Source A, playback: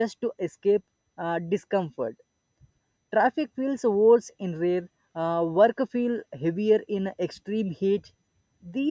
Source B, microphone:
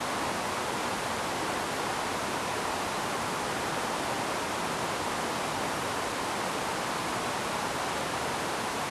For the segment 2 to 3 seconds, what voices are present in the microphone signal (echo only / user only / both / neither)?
neither